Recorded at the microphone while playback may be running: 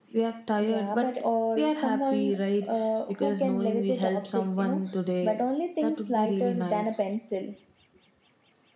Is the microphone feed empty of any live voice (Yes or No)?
Yes